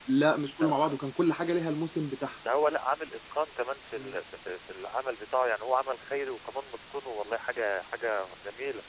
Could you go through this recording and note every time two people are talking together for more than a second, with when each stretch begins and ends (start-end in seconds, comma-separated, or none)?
none